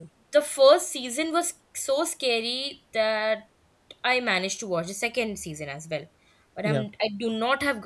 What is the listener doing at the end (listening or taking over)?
listening